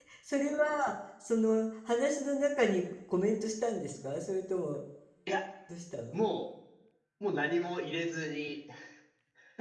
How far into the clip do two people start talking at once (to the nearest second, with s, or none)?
none